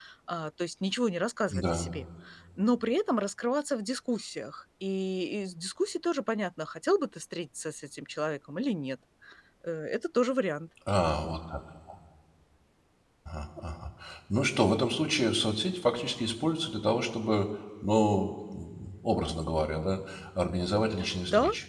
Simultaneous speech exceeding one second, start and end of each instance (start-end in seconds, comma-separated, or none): none